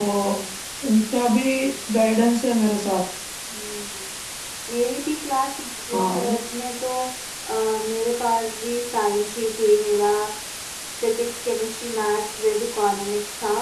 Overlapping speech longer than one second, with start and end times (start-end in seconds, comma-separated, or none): none